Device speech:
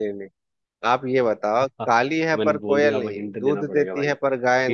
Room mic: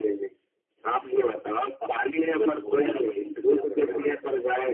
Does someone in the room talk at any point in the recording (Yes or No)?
No